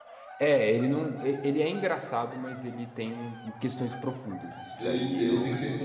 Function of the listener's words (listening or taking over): taking over